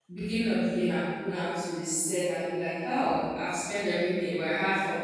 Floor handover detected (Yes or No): No